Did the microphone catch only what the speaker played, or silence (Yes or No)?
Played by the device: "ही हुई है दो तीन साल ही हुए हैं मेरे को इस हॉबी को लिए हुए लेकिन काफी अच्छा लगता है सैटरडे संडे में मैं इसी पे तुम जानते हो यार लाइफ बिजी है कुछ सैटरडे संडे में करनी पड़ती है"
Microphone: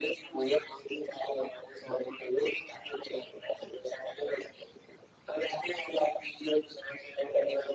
Yes